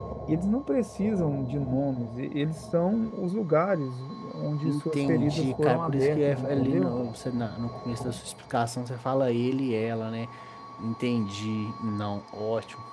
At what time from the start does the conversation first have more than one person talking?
4.6 s

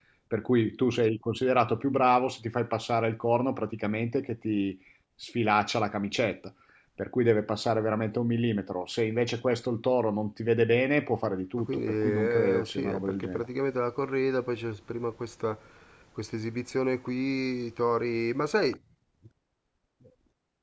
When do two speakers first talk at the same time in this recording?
11.6 s

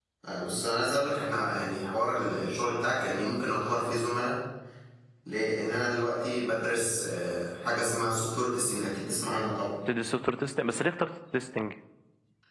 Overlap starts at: none

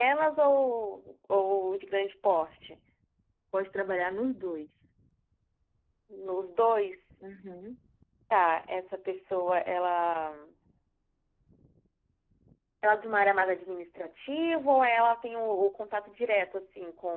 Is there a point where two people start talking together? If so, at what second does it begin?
none

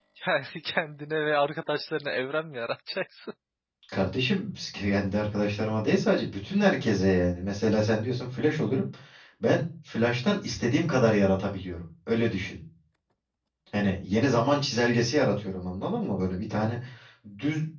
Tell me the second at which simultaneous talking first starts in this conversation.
none

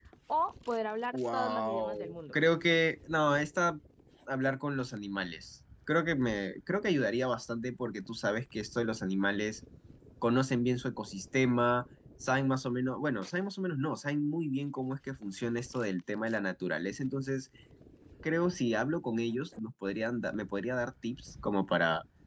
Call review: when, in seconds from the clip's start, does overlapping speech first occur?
1.1 s

